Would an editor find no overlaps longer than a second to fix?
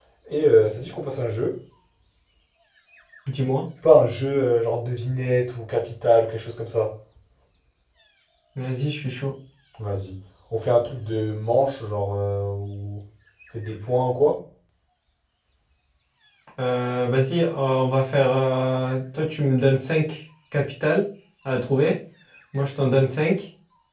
Yes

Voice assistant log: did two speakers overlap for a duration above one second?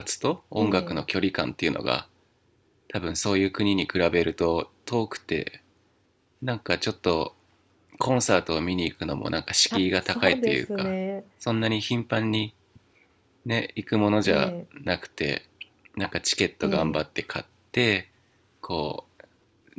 Yes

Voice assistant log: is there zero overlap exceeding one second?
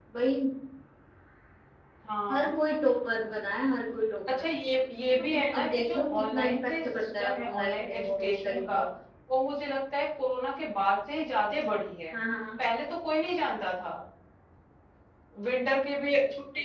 No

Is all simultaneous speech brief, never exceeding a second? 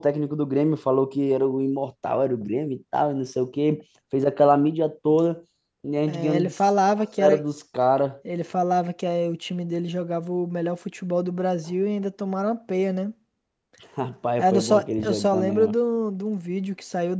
No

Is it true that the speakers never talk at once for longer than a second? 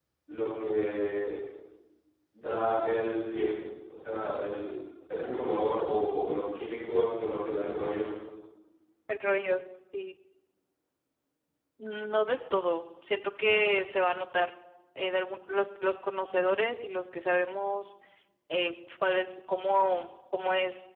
Yes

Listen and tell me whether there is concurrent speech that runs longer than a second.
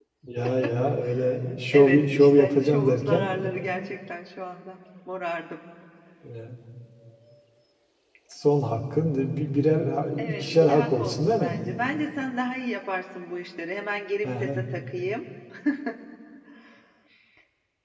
Yes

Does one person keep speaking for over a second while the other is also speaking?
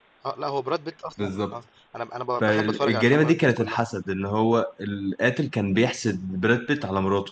Yes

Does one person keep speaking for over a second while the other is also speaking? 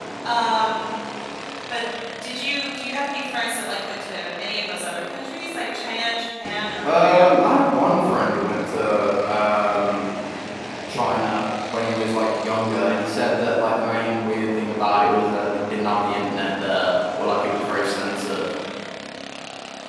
No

